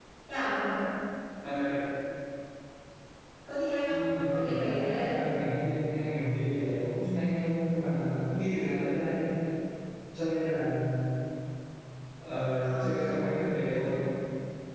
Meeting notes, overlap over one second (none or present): present